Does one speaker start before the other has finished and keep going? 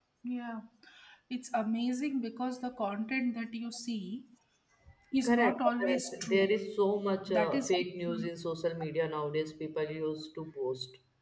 Yes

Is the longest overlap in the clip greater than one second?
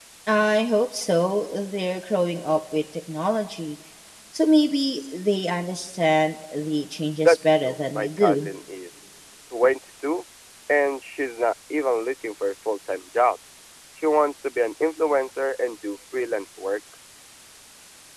Yes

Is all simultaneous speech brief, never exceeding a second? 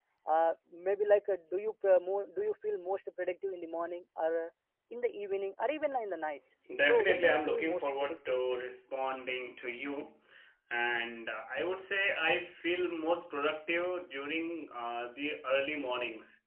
No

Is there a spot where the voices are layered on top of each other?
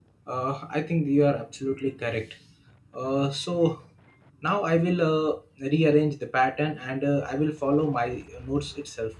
No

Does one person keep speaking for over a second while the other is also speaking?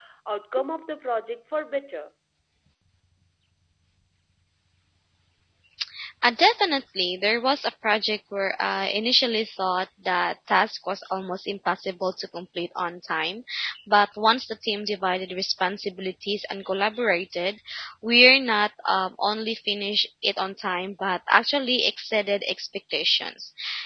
No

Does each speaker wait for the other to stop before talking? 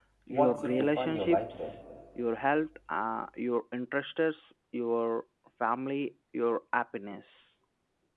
No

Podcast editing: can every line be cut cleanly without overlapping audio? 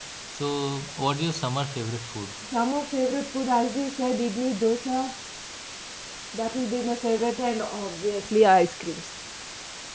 Yes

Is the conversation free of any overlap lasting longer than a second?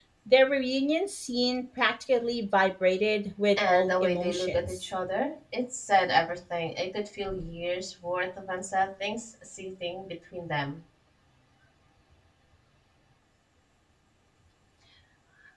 No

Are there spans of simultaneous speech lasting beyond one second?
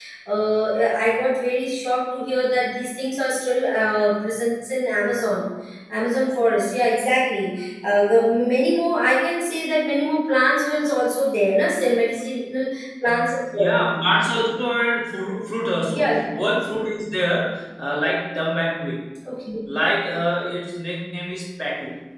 No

